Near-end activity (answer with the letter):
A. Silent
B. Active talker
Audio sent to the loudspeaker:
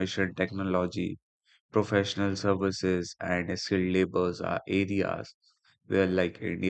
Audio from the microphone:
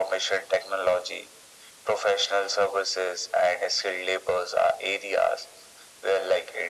A